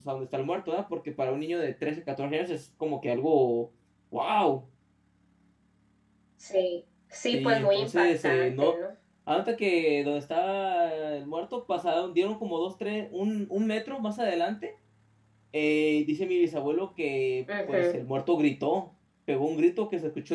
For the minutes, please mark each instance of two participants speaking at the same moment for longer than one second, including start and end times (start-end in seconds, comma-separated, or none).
7.3-8.8